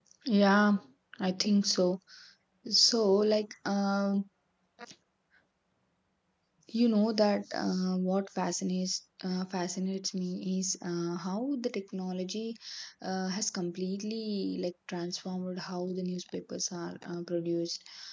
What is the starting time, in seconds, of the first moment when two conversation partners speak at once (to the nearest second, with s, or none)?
none